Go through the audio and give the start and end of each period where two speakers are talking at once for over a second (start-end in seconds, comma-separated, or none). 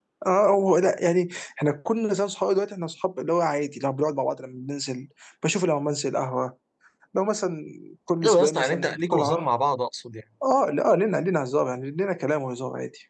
8.2-9.5